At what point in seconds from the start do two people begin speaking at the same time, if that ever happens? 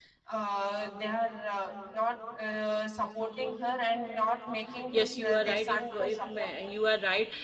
4.9 s

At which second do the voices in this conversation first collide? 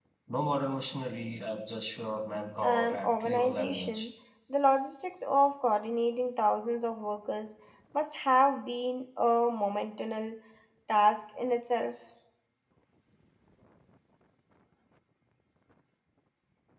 2.6 s

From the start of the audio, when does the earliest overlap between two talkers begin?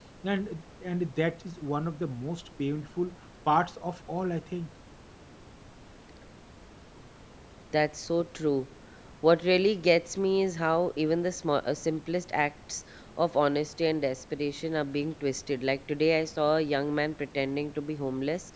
none

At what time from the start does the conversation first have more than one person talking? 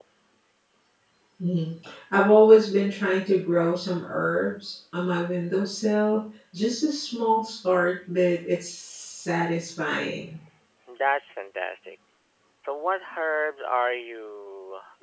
none

